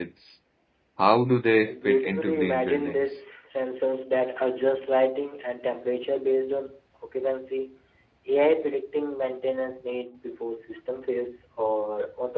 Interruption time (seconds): 1.6 s

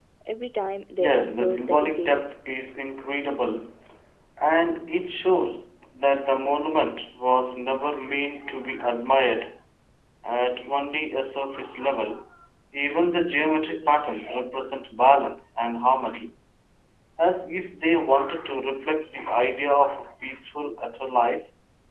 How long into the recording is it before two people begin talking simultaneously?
1.0 s

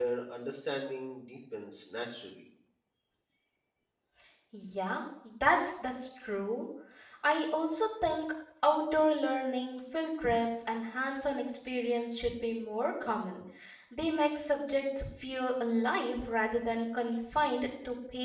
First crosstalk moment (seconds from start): none

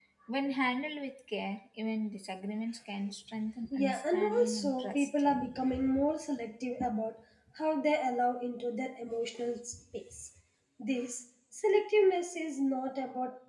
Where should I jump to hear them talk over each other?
3.6 s

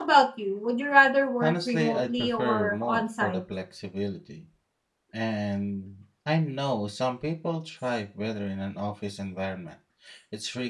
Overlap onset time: 1.4 s

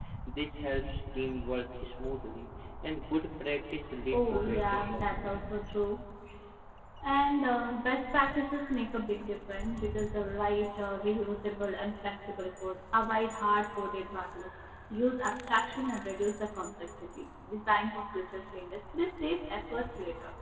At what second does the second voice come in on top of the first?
4.1 s

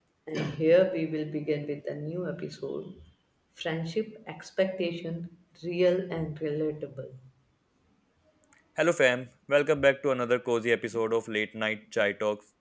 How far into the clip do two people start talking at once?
none

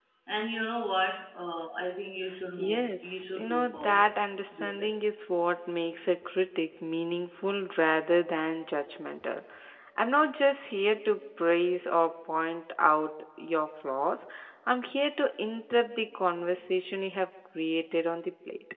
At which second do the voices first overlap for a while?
2.3 s

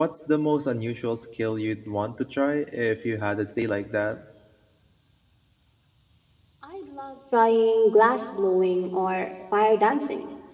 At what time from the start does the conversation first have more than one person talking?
none

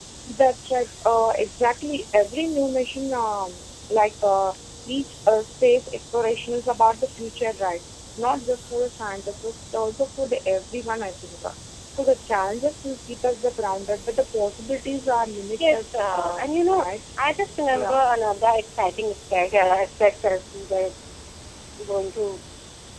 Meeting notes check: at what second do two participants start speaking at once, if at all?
15.6 s

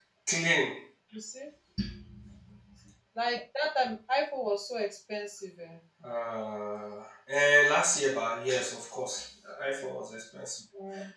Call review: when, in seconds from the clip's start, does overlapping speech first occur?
none

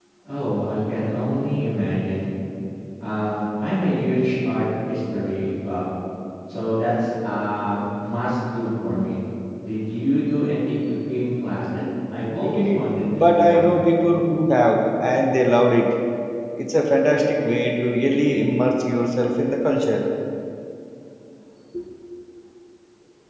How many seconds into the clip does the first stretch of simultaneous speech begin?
12.3 s

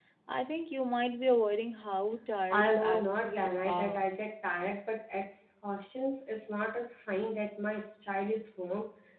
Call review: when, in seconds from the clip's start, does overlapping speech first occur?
2.5 s

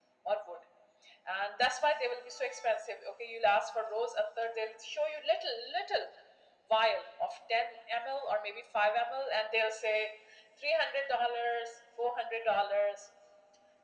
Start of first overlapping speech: none

